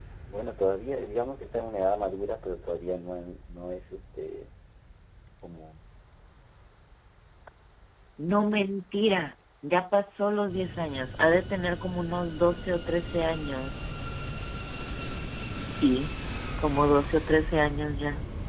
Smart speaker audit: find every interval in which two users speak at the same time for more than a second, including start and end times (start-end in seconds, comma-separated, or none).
none